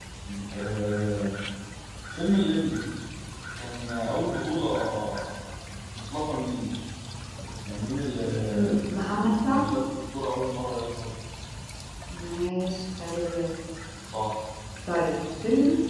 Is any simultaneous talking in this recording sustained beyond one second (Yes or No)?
No